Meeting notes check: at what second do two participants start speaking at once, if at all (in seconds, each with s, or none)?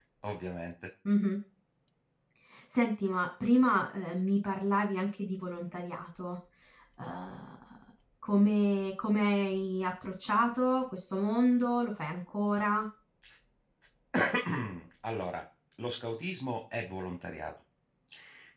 none